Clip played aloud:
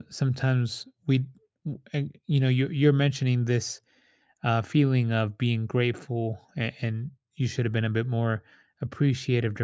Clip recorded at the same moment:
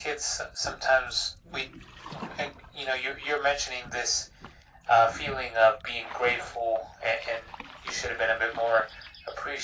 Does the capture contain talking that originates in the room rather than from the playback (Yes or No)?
No